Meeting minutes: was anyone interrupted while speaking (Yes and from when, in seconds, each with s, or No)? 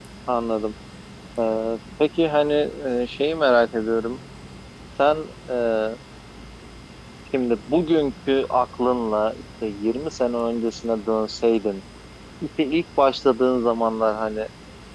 No